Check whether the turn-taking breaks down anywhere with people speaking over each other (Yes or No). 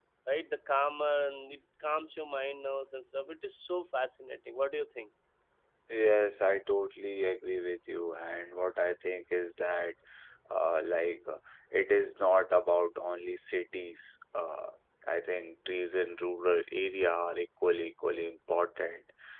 No